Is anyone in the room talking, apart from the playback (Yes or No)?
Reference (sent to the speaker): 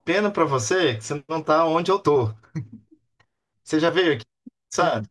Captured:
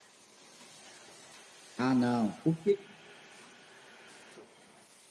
Yes